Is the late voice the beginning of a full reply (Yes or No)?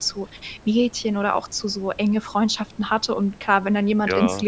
No